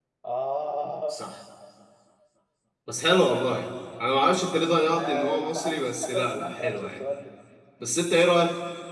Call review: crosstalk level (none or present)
present